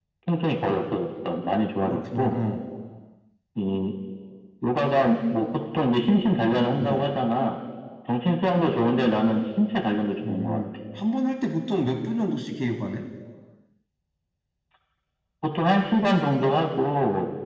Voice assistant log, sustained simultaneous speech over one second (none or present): none